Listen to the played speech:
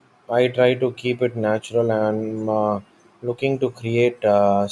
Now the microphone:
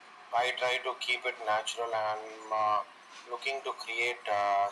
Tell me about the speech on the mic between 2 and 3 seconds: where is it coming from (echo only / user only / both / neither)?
echo only